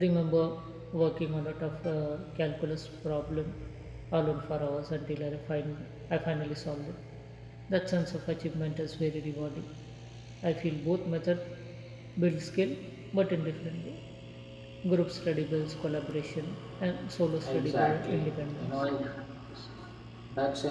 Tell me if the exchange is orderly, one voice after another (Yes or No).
No